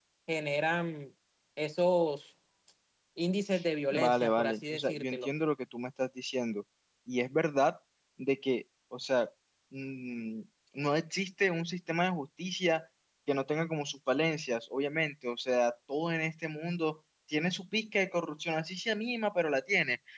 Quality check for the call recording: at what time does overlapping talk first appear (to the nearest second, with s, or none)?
4 s